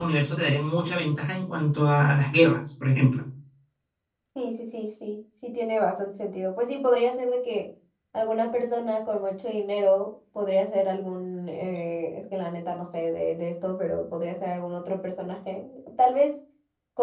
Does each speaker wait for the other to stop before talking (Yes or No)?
Yes